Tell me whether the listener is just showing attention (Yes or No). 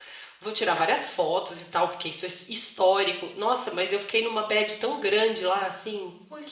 No